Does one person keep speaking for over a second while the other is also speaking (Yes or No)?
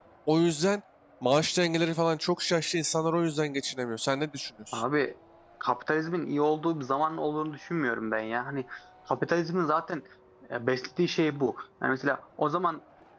No